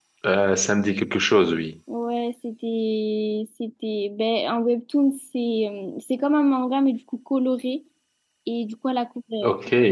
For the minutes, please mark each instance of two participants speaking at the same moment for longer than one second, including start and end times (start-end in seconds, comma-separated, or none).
none